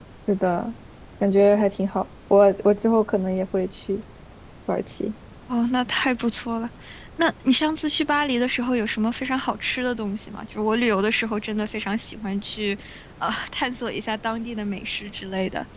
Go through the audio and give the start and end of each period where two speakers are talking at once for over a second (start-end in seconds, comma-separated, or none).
none